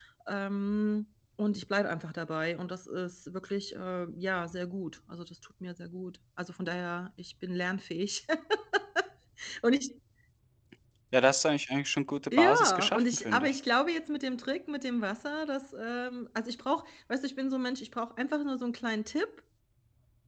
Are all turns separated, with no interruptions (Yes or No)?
No